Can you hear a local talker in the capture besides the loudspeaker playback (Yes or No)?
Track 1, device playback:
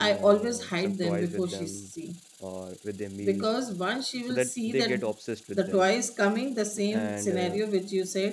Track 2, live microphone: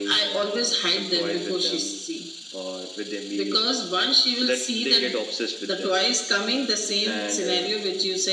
No